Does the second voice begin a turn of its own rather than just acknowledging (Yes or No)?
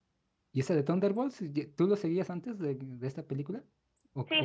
Yes